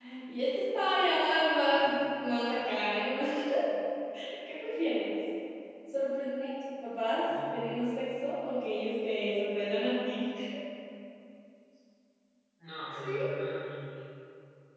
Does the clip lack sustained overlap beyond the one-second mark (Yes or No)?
Yes